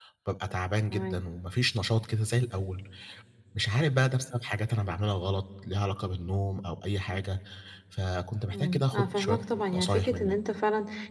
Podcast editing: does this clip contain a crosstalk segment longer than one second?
Yes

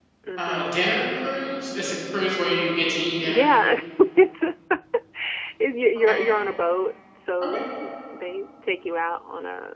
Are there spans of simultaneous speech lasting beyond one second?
No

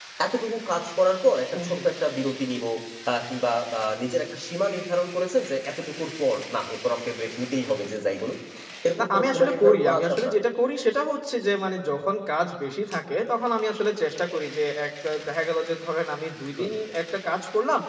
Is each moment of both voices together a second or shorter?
No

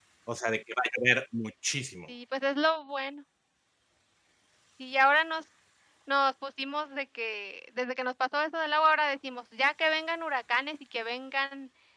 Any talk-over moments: No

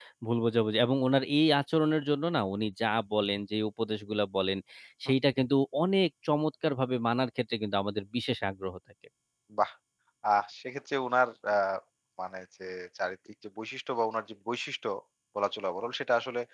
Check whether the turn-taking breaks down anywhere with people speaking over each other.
No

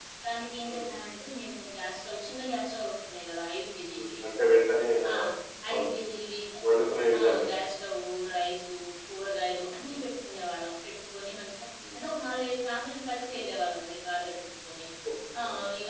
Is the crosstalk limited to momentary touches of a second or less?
Yes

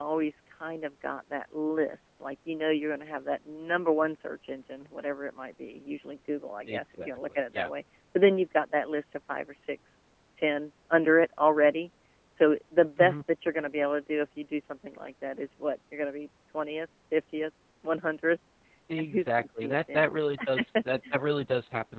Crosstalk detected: Yes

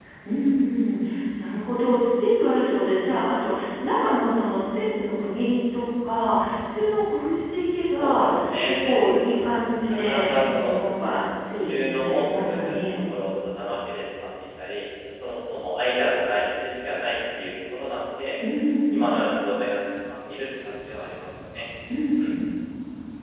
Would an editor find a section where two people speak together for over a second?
Yes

